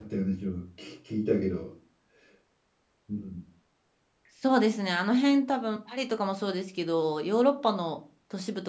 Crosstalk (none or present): none